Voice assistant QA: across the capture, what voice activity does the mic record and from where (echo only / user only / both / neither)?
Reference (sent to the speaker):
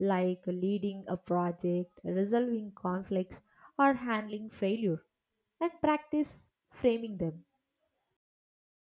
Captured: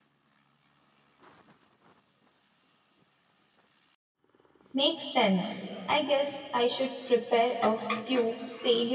user only